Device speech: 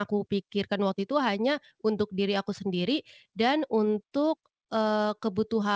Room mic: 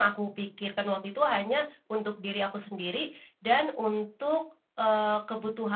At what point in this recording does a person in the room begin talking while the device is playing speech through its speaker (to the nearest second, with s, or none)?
none